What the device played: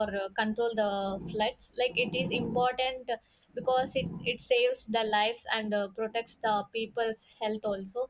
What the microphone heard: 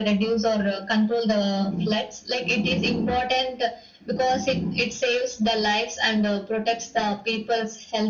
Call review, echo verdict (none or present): present